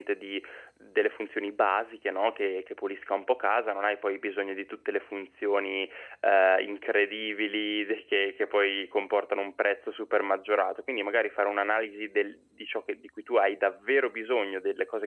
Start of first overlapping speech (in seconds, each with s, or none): none